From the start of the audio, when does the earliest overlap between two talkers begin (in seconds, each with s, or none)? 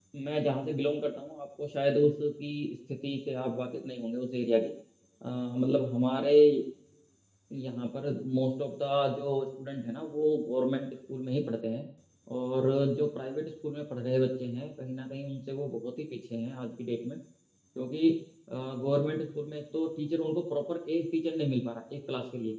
none